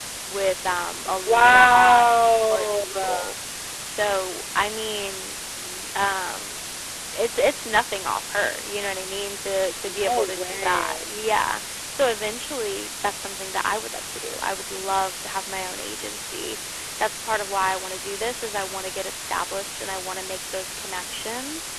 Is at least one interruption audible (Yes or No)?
Yes